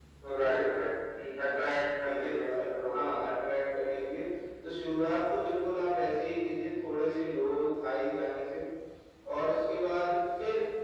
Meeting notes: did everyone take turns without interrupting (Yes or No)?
No